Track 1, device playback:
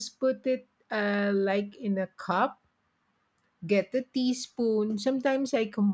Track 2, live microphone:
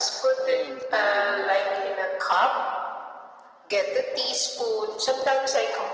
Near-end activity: present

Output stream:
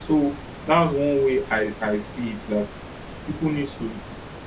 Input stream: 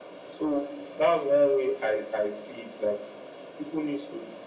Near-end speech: none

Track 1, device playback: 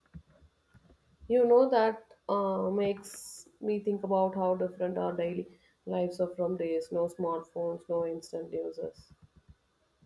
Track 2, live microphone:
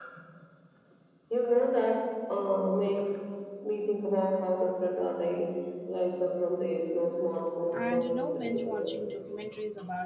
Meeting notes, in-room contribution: present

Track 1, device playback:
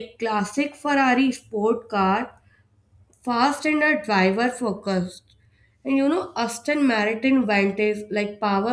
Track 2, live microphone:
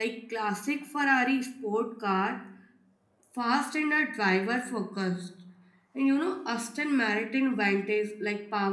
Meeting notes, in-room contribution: none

